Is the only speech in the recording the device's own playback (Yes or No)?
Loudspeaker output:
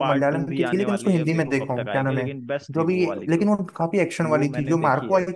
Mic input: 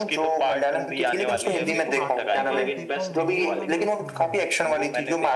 No